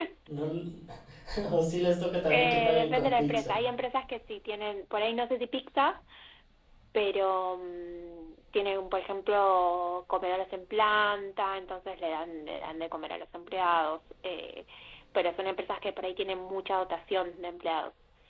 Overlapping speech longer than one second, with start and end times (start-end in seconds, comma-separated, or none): 2.3-3.6